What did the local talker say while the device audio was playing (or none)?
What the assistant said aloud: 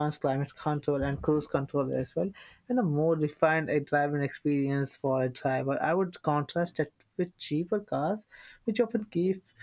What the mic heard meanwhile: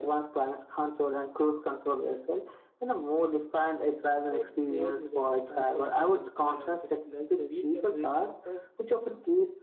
I would clearly that comfort isn't uh, just luxury; it can re- affect